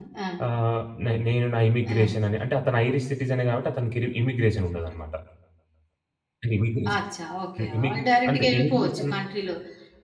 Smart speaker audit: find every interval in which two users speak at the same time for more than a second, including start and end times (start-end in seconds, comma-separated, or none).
7.8-9.1